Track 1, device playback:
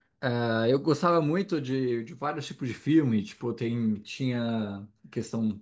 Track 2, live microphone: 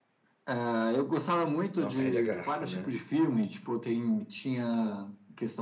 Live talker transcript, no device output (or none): não perde a graça, né?